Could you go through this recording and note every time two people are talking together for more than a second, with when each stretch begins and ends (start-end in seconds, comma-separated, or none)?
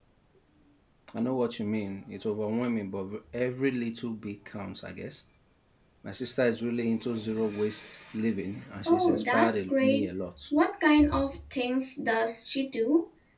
8.9-10.1